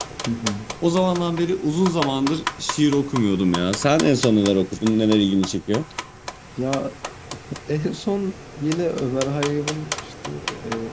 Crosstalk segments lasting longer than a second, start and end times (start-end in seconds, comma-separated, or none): none